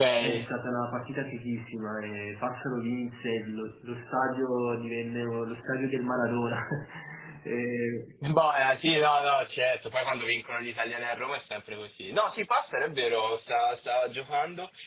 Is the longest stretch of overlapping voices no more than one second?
Yes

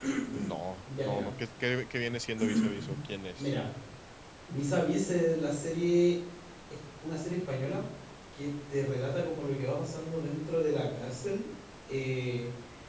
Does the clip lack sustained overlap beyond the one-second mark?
Yes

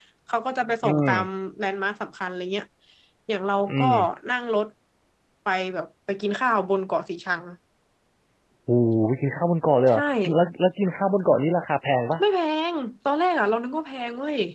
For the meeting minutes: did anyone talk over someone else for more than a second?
No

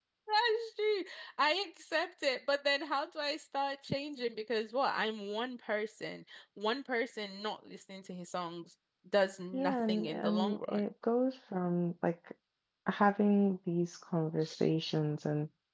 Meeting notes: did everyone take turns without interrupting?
No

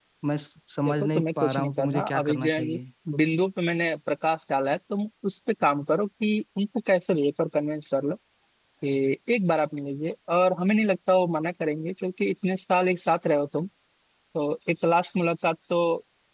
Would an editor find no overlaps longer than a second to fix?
No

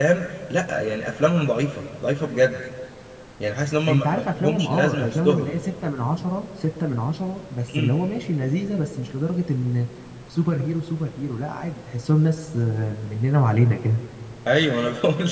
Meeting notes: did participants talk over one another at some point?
Yes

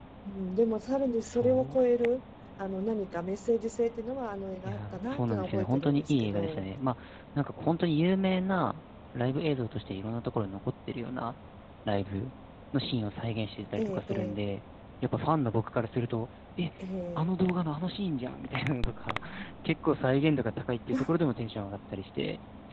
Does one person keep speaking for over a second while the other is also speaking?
Yes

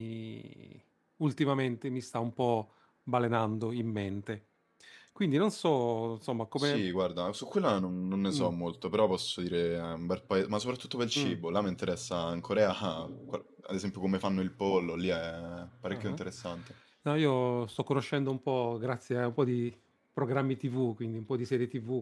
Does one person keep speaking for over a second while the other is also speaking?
No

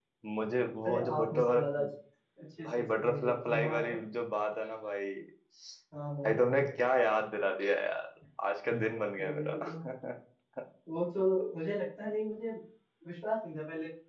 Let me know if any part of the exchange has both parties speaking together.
Yes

